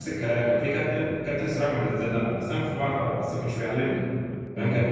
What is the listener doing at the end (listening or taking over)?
listening